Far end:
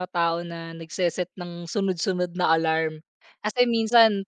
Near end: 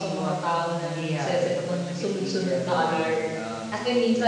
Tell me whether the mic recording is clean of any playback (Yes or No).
No